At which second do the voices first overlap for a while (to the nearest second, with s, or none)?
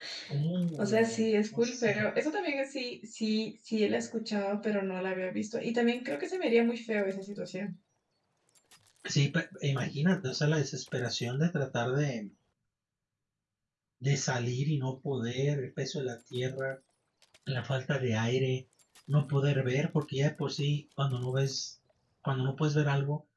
1 s